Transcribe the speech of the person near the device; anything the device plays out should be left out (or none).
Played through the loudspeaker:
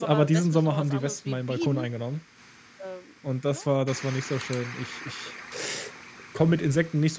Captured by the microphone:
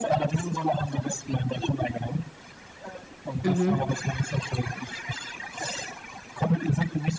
Mhm.